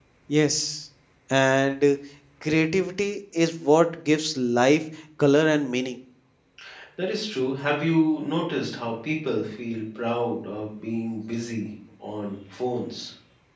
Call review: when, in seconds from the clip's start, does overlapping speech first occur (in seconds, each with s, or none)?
none